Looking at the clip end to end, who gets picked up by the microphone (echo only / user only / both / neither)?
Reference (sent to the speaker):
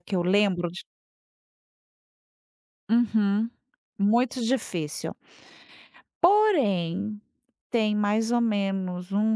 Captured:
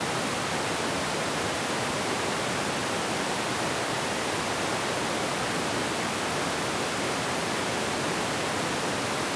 neither